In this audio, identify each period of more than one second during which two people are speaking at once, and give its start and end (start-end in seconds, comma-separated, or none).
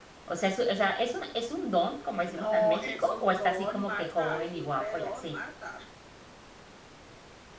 2.4-5.4